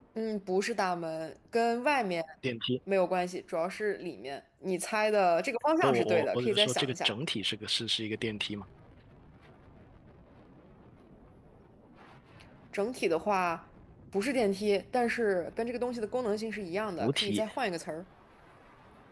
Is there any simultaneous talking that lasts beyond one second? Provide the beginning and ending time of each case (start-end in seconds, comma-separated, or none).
5.8-7.1